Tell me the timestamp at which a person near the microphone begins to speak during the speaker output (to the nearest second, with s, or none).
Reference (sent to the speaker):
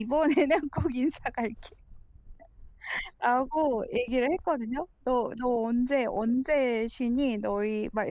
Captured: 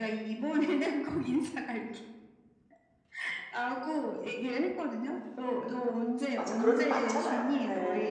6 s